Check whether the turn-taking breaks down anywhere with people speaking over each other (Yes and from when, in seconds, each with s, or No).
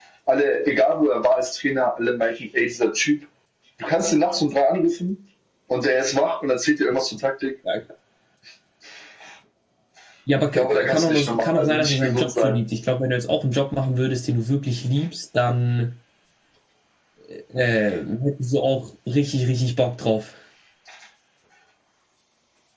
Yes, from 10.6 s